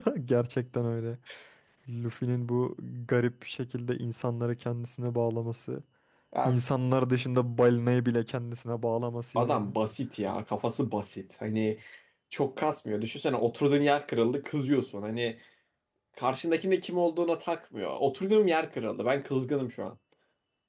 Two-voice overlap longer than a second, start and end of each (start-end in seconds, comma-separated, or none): none